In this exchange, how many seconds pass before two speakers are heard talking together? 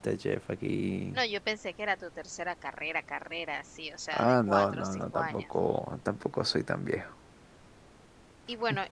4 s

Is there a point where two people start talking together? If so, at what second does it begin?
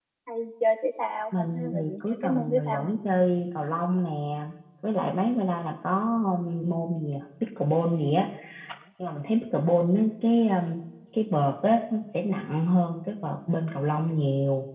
1 s

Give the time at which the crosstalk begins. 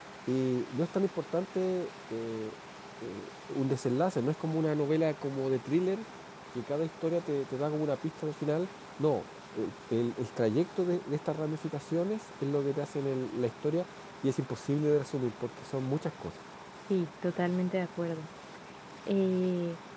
none

